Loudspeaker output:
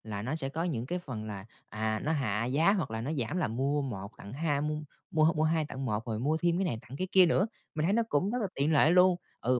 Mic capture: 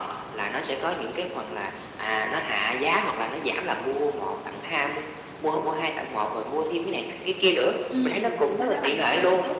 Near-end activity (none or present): present